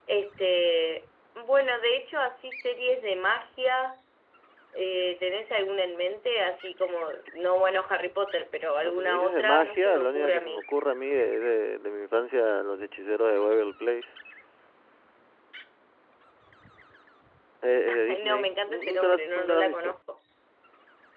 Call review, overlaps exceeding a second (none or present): present